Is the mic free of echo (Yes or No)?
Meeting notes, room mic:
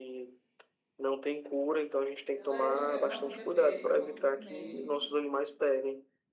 No